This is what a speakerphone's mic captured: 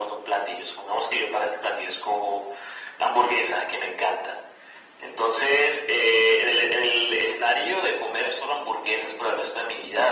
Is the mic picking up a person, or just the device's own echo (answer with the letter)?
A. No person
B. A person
A